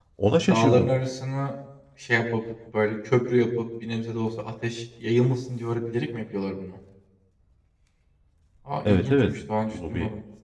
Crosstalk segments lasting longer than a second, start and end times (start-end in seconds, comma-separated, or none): none